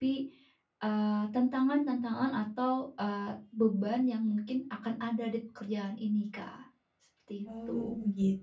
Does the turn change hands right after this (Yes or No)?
Yes